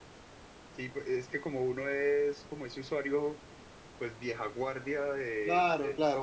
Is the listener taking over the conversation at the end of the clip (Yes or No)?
Yes